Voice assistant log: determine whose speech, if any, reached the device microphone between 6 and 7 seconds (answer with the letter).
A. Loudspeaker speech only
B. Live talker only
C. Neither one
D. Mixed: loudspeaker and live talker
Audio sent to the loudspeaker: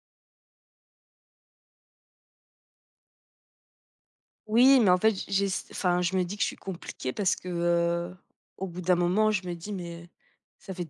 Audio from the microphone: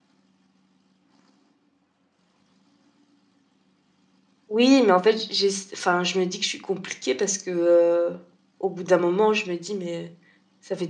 A